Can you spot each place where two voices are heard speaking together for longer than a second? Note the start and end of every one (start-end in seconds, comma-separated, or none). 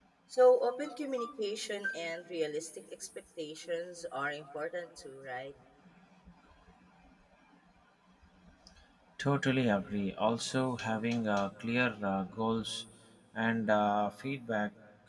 none